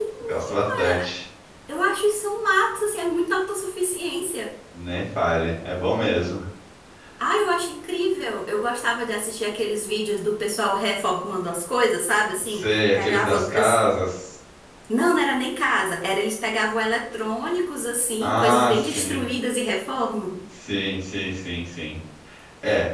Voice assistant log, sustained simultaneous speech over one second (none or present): present